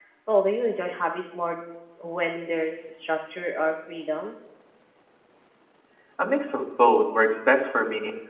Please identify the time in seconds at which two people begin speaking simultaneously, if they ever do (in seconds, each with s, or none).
none